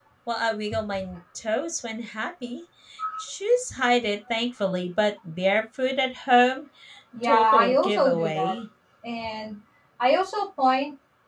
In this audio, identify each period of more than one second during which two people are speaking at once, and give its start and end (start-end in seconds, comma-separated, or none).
7.2-8.6